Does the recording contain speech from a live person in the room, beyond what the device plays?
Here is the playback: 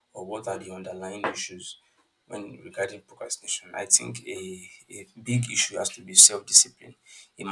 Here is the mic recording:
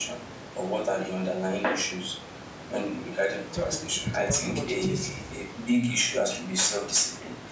Yes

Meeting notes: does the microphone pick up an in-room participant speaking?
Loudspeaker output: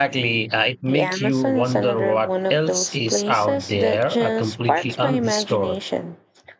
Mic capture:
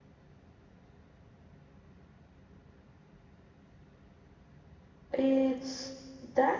Yes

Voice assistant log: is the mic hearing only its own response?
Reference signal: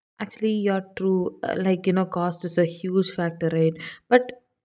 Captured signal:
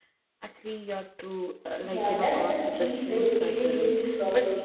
No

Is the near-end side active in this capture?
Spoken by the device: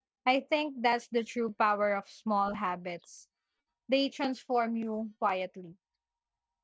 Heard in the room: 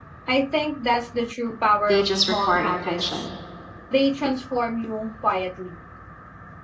Yes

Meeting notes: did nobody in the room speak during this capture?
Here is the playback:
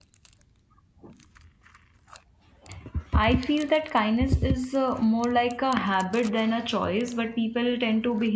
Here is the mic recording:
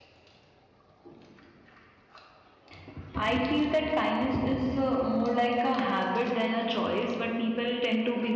Yes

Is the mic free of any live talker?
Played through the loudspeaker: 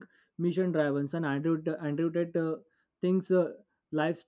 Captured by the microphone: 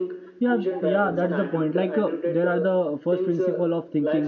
No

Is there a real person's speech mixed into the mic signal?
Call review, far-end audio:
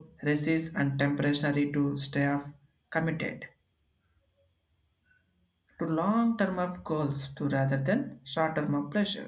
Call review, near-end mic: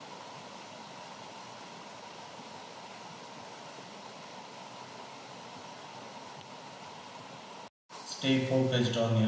Yes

